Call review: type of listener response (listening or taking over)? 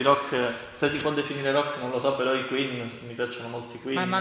taking over